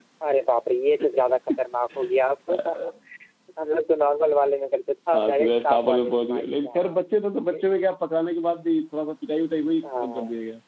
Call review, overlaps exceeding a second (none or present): present